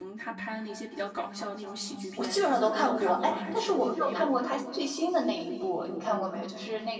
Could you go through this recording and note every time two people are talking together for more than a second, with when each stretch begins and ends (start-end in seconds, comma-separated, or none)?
2.2-4.2